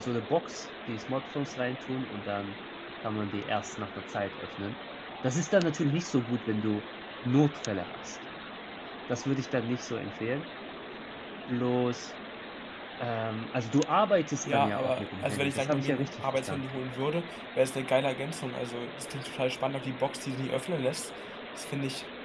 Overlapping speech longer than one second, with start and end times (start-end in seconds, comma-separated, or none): 14.4-16.6